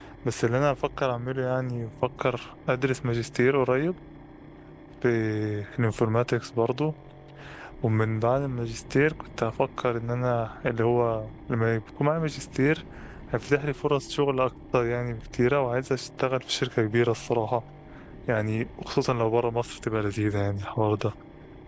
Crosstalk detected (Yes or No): No